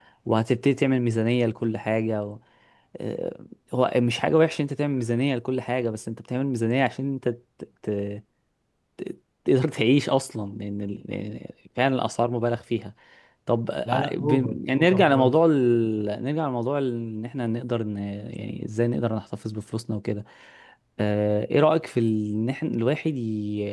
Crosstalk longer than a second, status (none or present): present